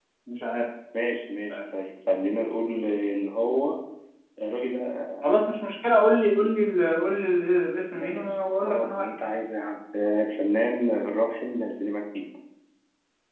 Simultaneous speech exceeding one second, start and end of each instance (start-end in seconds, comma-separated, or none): 7.9-9.3